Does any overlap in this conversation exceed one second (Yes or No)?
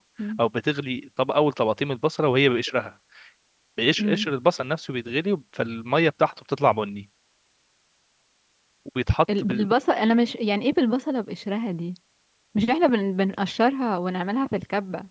No